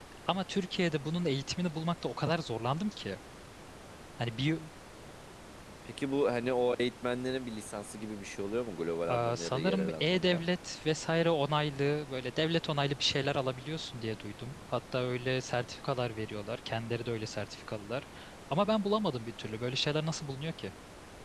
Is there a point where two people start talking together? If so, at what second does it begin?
9 s

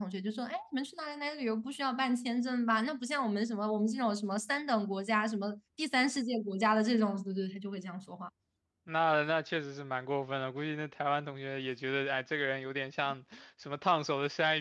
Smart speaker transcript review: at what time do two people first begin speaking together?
none

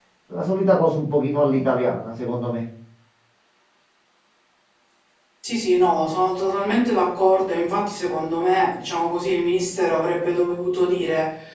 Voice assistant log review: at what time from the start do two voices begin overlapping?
none

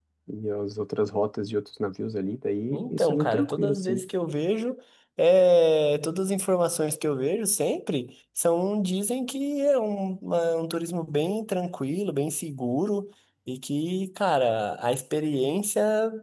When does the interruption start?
3 s

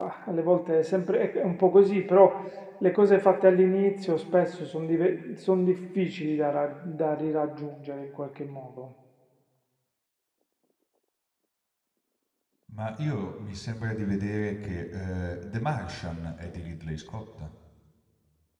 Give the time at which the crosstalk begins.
none

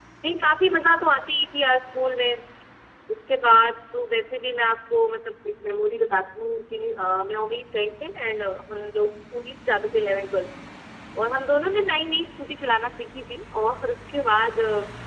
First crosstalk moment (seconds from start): none

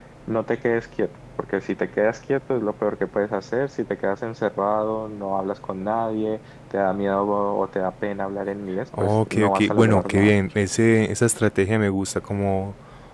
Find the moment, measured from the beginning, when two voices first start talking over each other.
9 s

